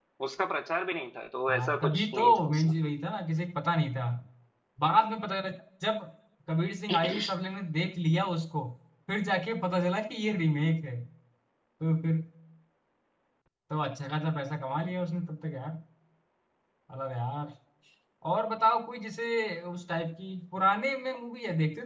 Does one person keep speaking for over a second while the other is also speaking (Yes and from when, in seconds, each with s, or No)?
Yes, from 1.5 s